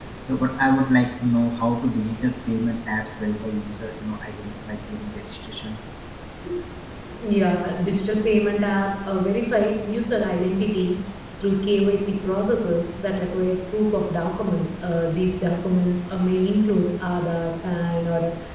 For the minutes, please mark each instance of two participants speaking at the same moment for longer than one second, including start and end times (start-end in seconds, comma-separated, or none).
none